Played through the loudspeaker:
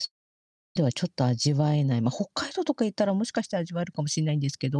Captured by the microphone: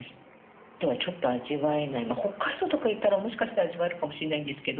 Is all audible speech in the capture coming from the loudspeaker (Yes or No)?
Yes